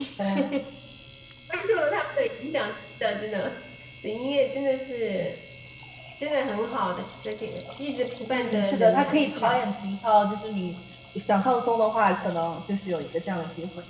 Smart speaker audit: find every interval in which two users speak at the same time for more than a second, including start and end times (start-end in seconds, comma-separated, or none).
8.3-9.6